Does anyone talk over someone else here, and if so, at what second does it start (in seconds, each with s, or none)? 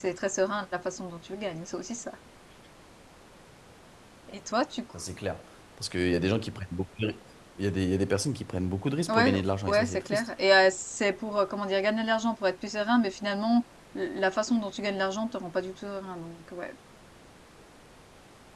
9.1 s